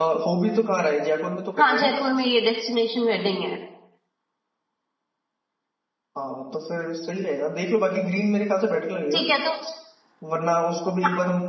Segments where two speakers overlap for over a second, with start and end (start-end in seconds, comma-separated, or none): none